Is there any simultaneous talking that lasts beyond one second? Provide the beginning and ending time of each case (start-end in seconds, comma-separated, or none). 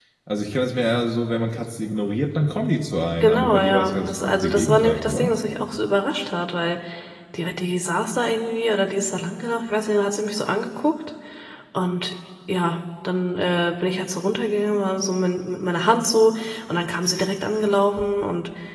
3.2-5.3